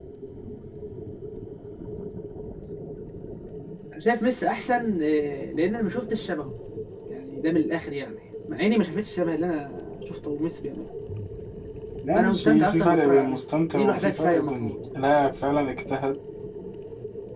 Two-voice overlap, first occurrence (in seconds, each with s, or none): 12.1 s